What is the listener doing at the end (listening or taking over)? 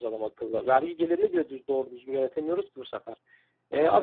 listening